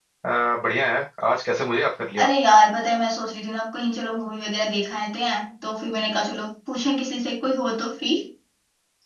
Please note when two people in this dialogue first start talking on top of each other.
none

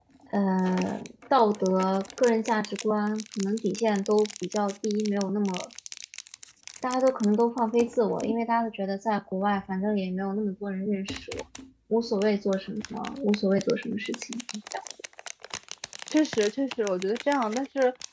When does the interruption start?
none

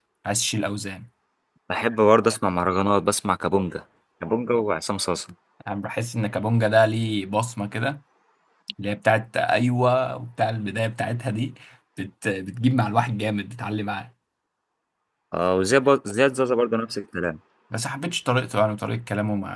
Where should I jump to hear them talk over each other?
none

